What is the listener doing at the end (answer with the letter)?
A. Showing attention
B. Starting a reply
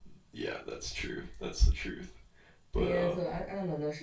B